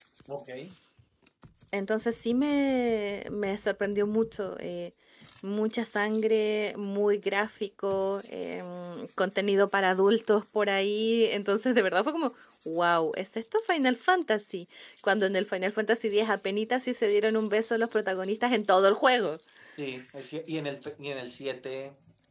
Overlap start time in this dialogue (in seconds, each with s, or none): none